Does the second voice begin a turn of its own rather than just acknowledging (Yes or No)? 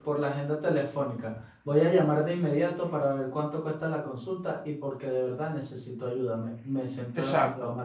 Yes